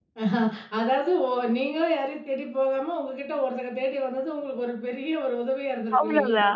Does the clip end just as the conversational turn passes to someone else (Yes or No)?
Yes